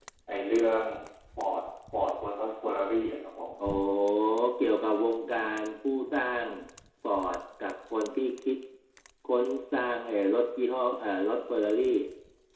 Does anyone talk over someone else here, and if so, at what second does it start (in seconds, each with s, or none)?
none